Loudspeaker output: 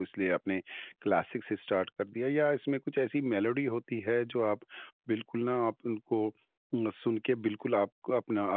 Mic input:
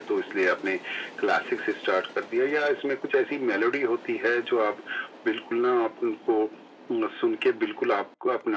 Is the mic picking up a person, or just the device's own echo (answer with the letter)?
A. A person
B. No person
B